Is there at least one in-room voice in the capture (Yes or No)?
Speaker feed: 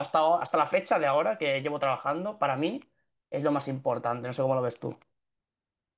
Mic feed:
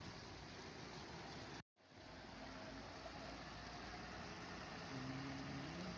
No